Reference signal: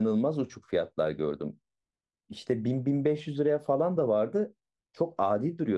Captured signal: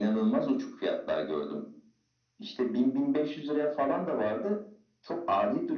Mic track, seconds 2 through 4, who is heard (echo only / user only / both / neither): echo only